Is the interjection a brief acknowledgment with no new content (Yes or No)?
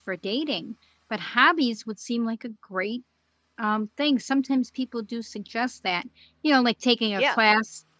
Yes